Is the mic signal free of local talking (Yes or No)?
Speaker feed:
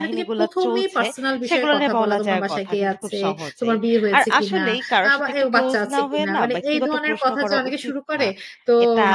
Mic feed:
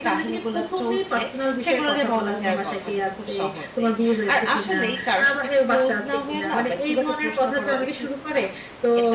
Yes